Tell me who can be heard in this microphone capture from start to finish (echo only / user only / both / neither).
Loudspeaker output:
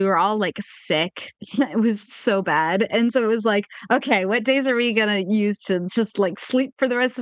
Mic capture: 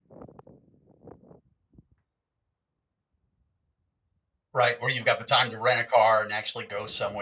user only